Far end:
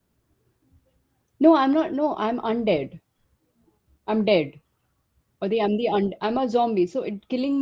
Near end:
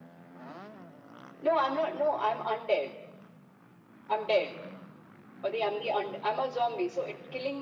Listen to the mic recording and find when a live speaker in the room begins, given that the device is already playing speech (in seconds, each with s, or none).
none